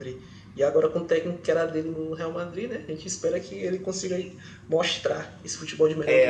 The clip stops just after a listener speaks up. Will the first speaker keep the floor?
No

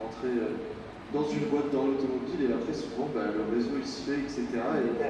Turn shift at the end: No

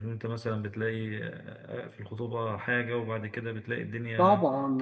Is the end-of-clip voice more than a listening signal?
Yes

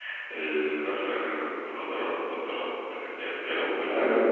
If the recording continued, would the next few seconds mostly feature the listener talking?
Yes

